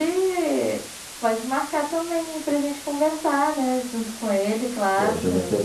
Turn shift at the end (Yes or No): Yes